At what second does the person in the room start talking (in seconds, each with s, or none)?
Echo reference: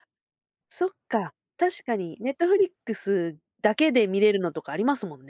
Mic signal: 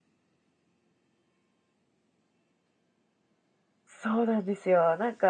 3.9 s